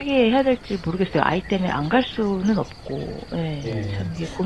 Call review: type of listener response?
taking over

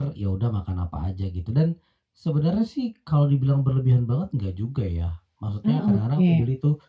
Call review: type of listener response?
listening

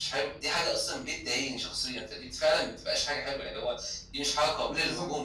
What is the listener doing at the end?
taking over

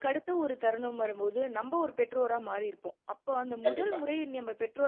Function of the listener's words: listening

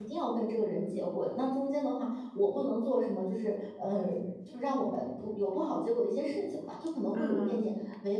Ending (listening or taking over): listening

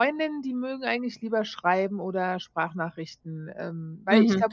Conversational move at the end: taking over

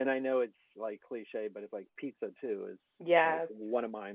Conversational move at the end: listening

